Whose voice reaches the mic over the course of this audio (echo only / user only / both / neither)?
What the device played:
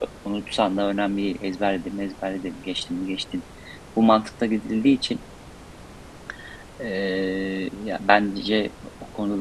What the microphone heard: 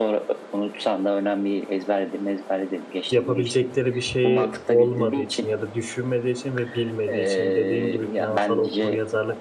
both